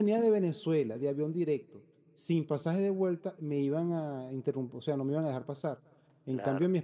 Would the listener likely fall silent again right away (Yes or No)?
Yes